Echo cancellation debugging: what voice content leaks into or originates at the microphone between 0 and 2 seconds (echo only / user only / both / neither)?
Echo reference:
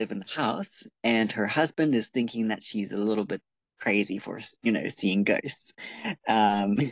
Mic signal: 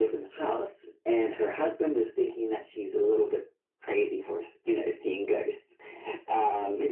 echo only